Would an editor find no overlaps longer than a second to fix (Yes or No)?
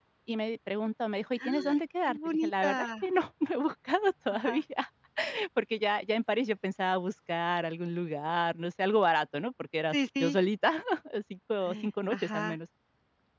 No